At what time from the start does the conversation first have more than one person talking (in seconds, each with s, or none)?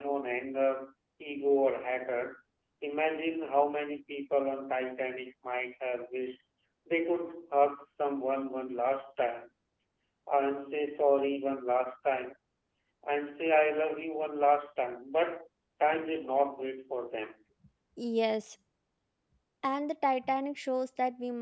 none